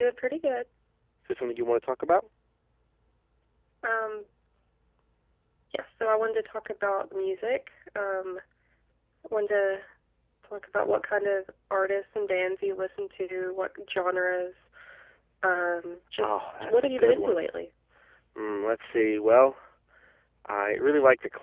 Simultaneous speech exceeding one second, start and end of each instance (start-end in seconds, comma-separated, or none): 16.2-17.4